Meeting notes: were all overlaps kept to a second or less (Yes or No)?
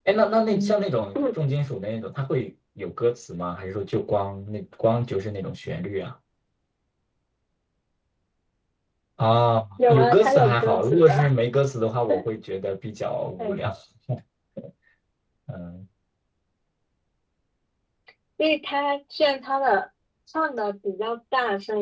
No